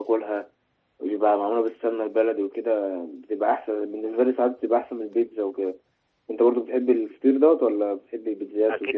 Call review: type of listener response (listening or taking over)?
taking over